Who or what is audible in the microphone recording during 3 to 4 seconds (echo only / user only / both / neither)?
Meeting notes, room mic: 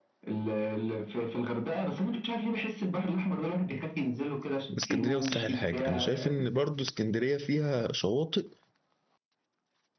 echo only